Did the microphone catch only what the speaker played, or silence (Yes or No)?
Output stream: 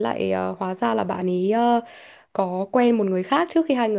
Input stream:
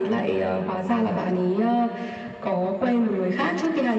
Yes